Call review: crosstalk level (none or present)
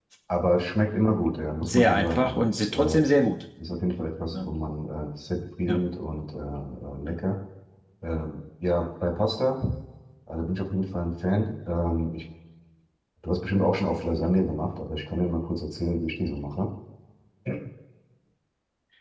present